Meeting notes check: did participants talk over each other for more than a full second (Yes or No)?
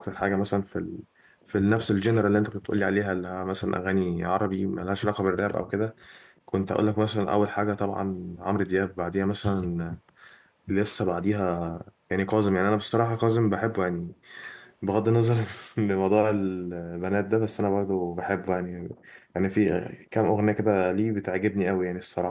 No